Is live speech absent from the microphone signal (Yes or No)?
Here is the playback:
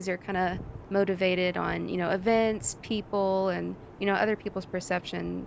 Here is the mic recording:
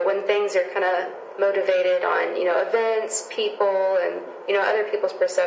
Yes